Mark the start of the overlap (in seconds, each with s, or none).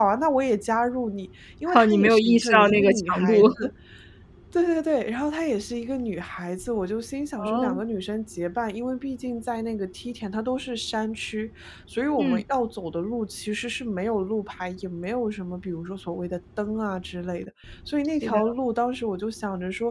1.7 s